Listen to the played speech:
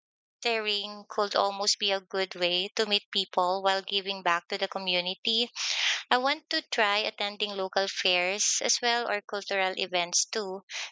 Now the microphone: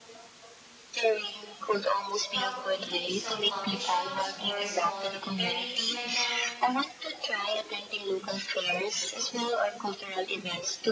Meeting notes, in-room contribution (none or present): present